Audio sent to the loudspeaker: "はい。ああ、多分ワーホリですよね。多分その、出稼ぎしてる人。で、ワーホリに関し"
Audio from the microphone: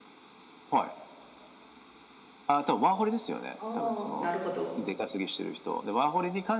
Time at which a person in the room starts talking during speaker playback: 3.6 s

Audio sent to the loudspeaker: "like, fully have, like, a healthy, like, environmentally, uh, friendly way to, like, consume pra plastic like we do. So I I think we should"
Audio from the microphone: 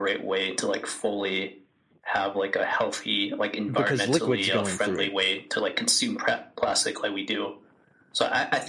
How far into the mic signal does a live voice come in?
3.7 s

